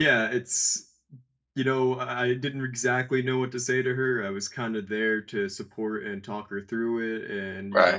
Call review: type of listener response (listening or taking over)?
listening